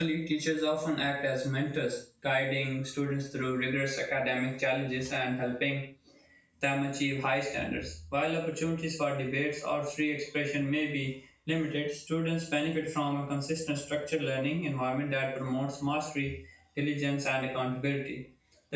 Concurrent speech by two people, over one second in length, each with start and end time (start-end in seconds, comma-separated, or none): none